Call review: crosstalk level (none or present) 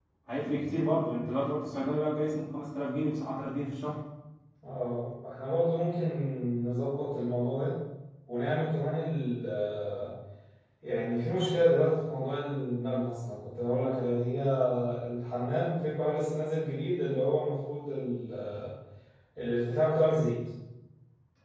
none